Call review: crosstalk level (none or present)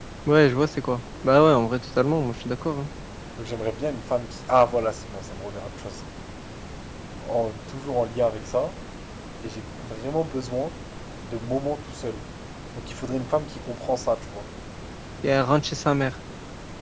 none